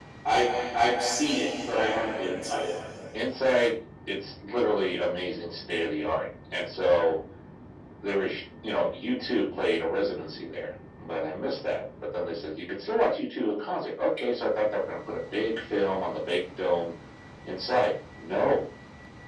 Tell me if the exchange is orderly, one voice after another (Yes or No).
Yes